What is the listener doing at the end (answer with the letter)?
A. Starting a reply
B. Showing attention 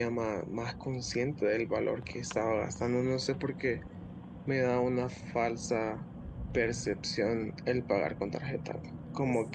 B